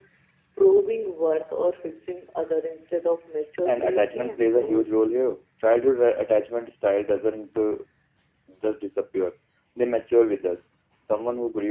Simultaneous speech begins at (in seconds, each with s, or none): 3.6 s